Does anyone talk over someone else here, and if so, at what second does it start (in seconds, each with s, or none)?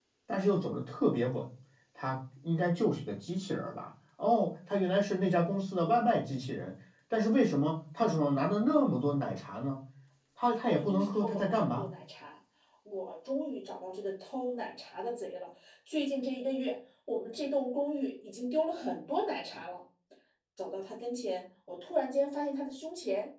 10.6 s